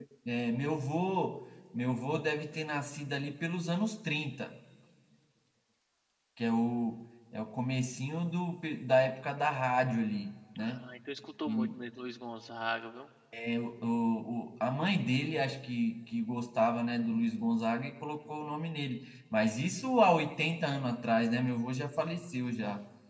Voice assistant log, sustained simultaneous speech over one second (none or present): none